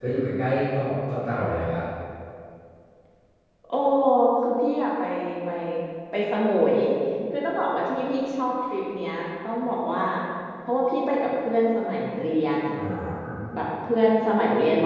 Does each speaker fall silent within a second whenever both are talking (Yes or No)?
Yes